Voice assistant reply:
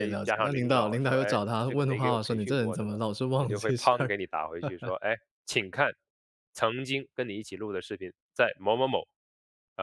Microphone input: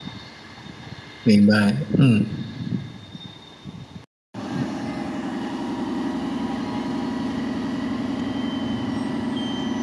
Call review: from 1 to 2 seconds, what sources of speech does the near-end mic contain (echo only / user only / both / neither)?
user only